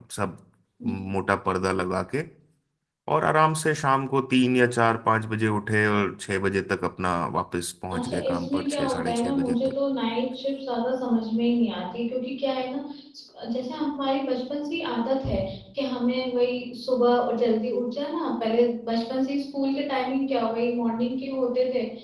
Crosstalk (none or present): present